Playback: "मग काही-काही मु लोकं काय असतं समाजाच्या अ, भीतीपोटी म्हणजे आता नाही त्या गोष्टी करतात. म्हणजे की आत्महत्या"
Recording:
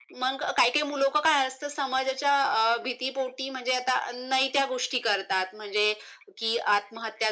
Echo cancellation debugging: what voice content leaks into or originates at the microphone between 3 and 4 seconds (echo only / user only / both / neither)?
echo only